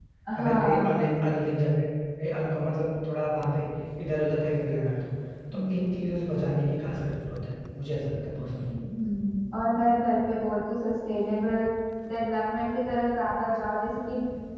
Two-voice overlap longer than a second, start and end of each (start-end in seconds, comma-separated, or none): none